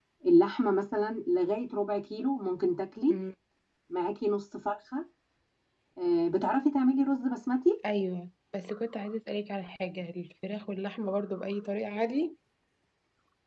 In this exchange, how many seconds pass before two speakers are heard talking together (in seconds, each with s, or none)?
none